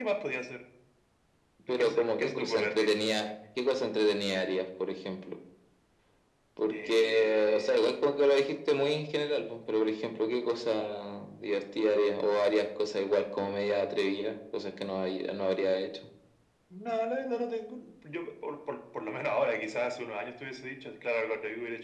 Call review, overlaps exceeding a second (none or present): present